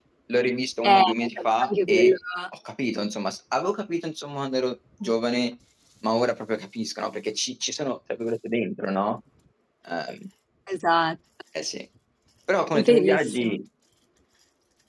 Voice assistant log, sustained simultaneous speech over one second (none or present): present